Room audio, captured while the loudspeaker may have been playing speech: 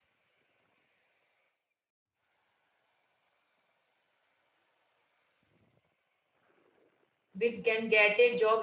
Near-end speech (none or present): present